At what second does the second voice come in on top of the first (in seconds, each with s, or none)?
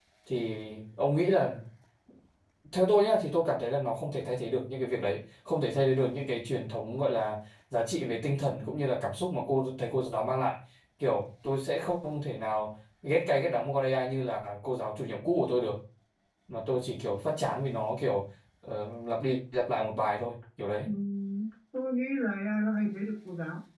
none